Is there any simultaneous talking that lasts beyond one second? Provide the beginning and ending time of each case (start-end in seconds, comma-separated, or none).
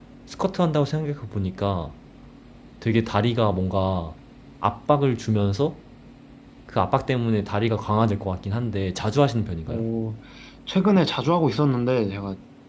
none